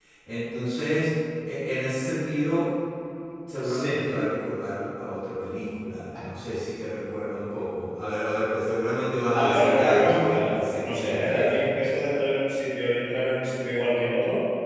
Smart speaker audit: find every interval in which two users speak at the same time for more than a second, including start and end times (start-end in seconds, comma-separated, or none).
9.3-11.7